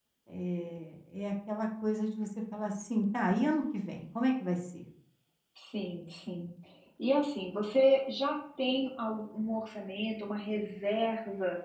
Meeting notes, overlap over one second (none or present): none